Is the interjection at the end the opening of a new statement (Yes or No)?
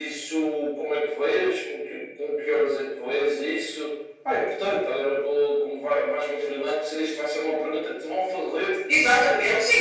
Yes